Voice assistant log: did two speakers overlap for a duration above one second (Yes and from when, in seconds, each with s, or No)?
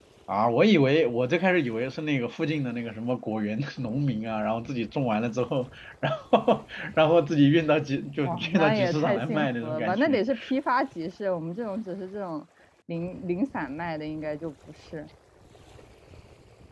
Yes, from 8.2 s